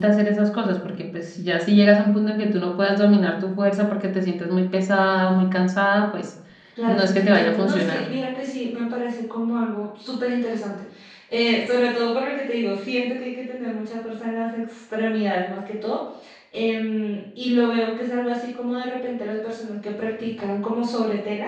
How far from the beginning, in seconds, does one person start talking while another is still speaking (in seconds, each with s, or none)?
6.9 s